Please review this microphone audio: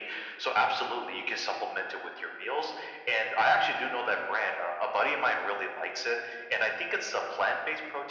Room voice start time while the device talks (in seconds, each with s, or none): none